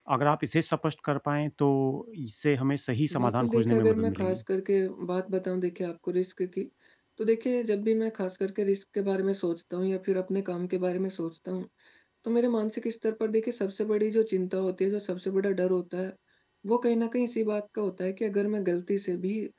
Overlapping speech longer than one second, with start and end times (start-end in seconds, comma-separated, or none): 3.2-4.4